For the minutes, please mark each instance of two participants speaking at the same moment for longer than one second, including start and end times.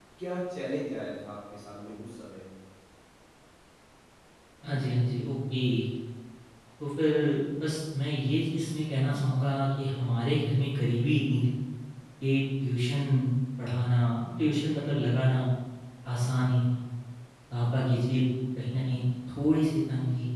none

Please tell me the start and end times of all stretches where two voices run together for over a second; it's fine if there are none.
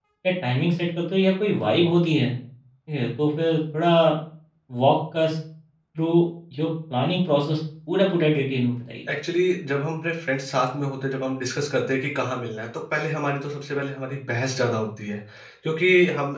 none

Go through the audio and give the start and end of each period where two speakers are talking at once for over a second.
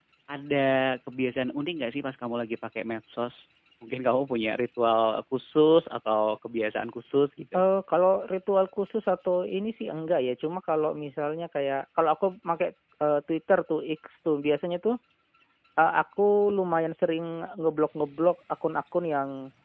none

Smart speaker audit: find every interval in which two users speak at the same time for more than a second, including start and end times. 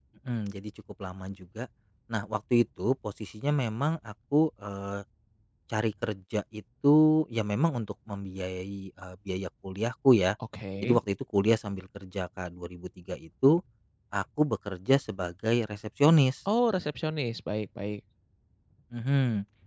none

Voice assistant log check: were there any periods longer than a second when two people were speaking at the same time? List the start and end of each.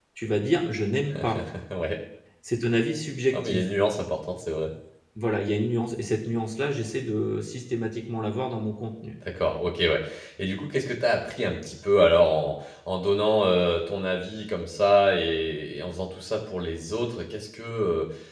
none

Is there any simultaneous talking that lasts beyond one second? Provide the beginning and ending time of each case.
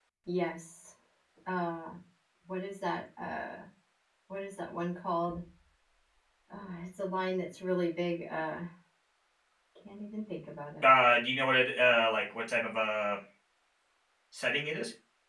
none

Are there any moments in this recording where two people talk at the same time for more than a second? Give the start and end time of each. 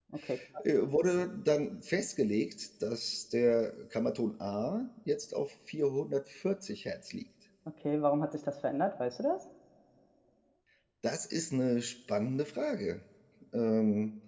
none

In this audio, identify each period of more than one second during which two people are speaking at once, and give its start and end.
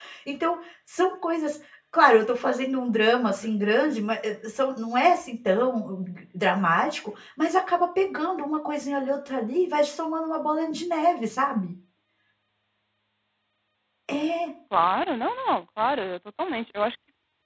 none

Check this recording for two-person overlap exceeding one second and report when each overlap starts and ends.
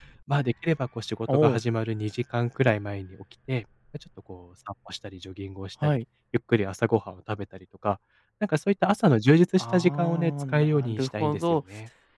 9.6-11.6

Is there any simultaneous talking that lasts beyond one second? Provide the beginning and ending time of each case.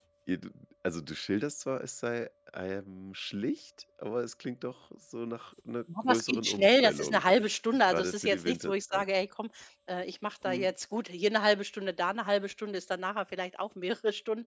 6.0-7.2, 7.8-9.0

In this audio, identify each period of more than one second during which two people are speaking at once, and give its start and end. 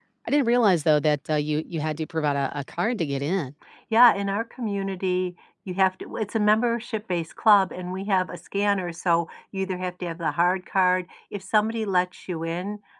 none

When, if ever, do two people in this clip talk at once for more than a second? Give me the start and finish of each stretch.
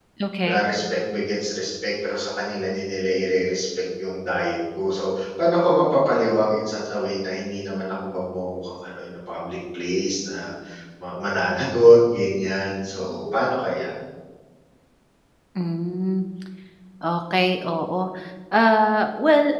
none

